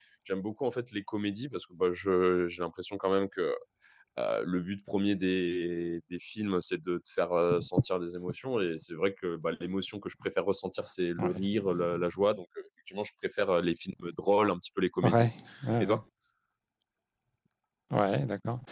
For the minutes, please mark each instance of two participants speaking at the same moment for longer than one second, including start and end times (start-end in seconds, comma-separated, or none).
none